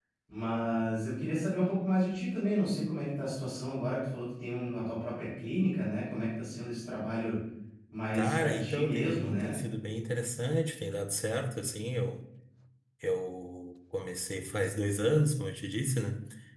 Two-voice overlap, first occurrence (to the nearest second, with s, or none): 8 s